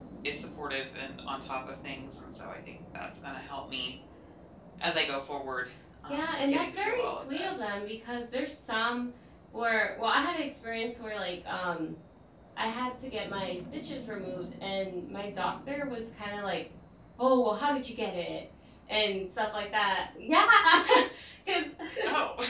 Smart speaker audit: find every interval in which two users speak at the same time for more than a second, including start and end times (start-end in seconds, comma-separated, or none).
6.1-7.7